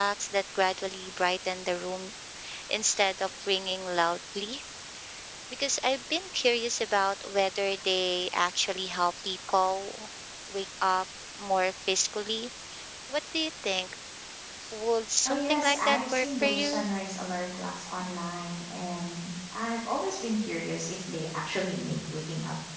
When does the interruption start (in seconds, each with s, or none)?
15.3 s